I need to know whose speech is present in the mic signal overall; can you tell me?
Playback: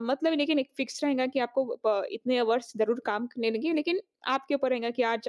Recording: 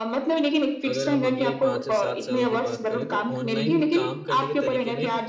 both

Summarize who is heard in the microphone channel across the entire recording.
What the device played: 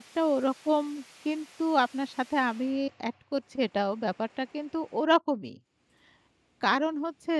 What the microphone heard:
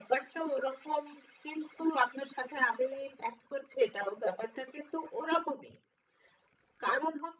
echo only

